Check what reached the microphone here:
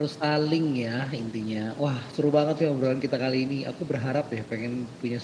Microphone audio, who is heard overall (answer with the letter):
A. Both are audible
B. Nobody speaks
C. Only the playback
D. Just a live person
D